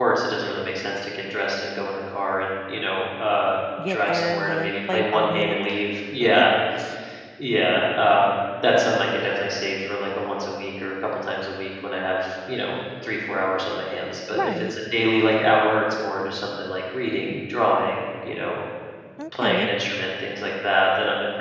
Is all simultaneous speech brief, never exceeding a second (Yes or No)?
No